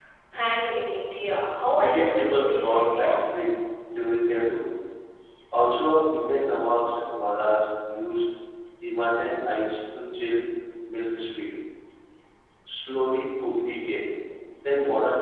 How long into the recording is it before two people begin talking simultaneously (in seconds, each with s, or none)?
1.7 s